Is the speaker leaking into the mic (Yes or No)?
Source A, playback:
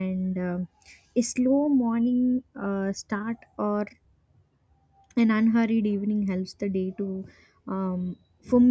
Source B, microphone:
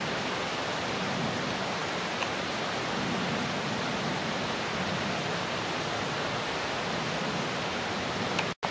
No